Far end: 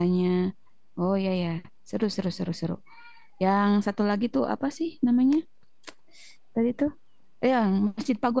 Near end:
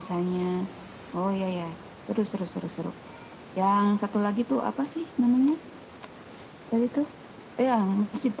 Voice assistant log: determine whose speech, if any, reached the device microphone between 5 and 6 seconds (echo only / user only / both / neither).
echo only